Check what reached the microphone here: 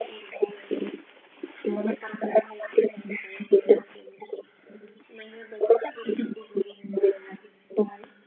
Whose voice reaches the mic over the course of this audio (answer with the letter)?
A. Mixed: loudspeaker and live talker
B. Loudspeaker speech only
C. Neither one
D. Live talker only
B